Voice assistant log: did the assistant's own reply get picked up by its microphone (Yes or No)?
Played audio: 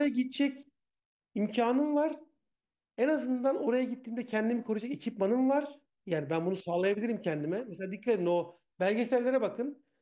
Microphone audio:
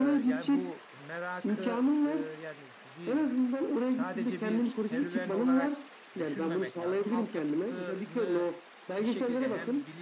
Yes